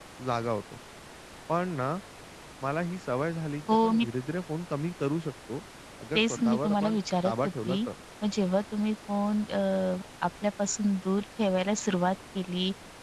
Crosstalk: present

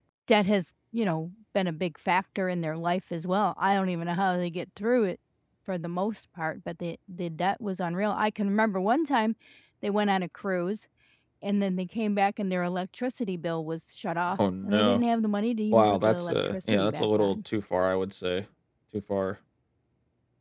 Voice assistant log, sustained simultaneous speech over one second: present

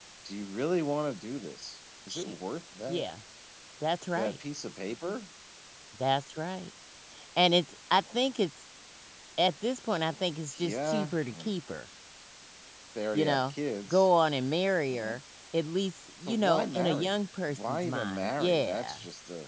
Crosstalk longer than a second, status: present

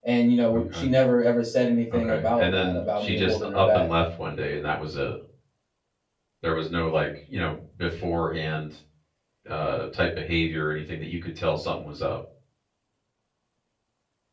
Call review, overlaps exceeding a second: present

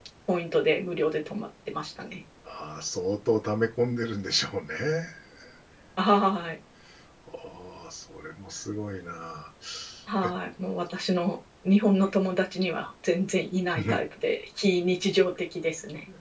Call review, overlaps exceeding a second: none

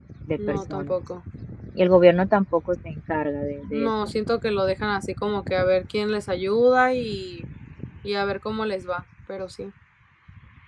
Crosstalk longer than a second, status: none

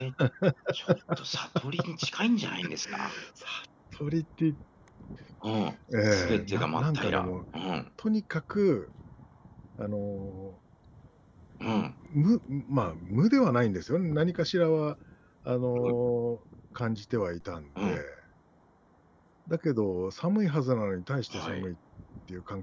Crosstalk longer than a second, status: present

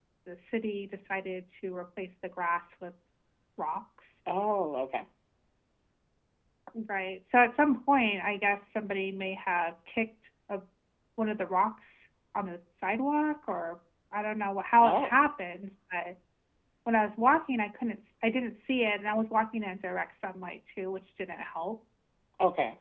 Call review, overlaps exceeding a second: none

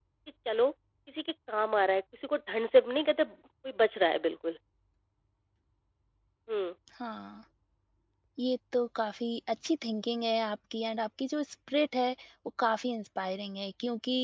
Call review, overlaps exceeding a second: none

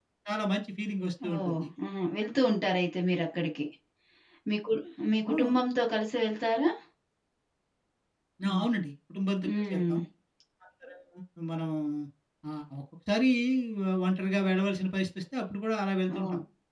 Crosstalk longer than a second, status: none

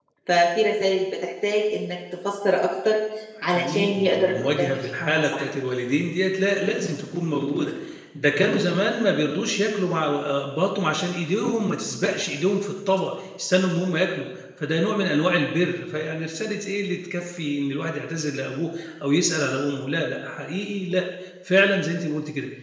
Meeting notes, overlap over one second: present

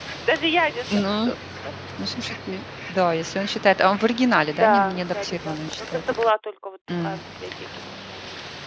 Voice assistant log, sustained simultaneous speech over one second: present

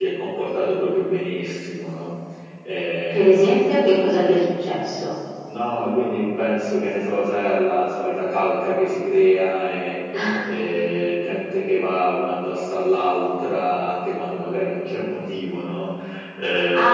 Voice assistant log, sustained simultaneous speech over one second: none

